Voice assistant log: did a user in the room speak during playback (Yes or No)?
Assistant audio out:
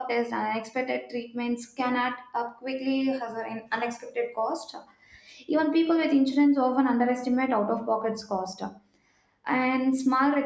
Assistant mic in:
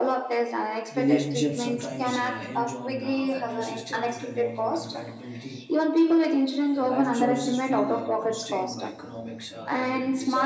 Yes